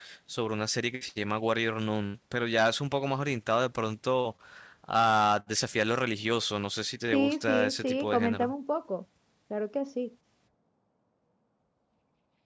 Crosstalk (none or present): present